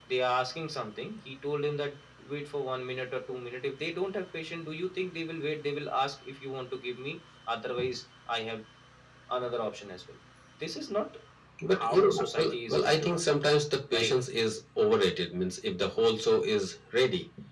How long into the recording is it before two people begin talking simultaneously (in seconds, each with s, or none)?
11.8 s